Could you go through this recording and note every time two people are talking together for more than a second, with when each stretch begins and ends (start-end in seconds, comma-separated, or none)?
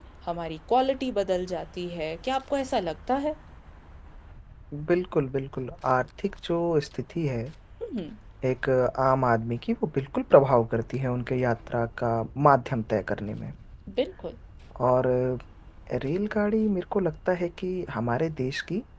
none